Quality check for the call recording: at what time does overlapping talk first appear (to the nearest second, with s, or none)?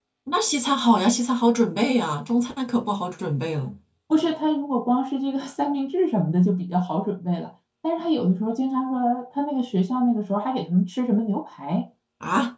none